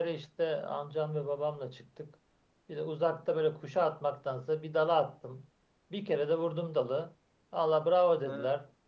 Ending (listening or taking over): listening